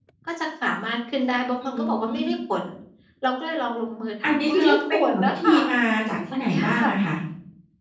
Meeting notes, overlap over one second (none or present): present